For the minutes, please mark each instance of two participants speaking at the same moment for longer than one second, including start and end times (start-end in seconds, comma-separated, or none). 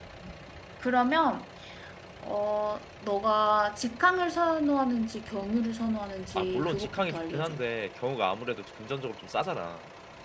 6.3-7.6